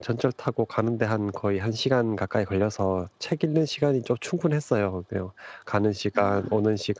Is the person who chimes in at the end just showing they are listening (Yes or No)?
Yes